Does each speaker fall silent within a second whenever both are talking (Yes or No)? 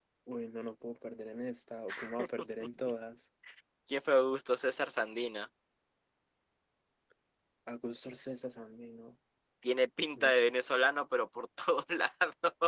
Yes